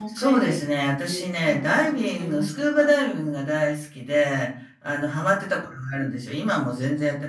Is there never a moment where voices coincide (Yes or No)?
No